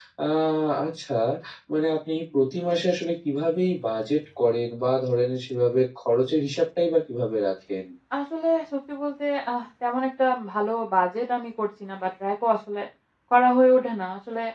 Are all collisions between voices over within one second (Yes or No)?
Yes